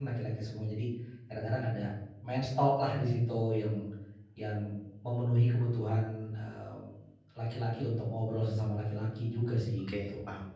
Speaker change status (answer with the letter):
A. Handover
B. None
A